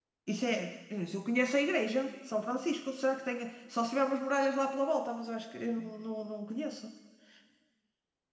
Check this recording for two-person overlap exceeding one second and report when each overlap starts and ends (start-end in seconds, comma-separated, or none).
none